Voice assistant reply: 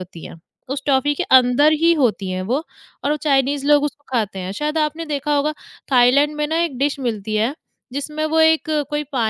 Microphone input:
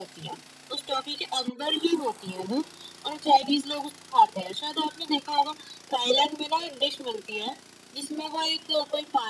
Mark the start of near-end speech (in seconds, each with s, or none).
none